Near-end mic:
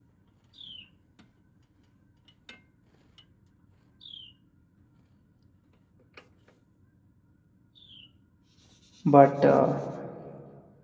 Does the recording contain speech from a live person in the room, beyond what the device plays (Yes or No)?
Yes